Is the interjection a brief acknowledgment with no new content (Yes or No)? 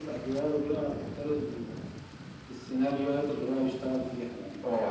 No